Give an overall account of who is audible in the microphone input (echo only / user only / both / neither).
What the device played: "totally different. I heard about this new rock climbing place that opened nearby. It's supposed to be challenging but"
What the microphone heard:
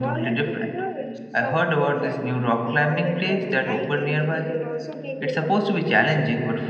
both